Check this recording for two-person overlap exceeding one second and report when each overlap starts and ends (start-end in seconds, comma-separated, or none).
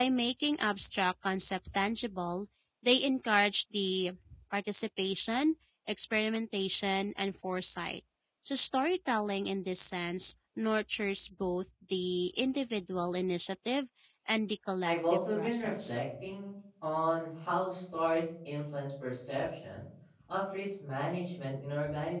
14.8-16.0